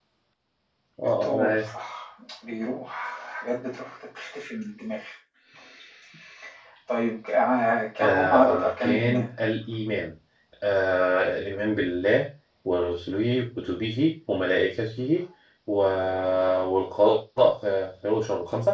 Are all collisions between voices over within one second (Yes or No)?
No